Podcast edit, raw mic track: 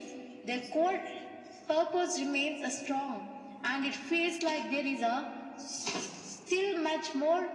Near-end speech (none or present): none